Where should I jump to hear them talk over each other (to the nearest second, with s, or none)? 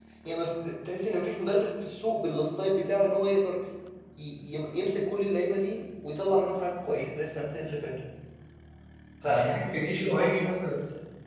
9 s